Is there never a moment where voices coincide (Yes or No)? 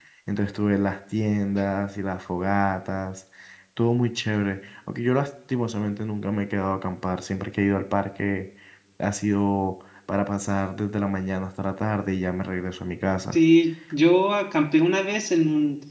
Yes